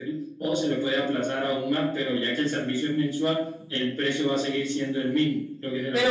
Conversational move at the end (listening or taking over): taking over